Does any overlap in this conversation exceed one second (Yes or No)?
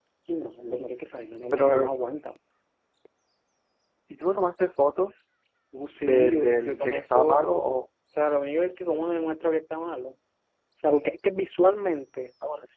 Yes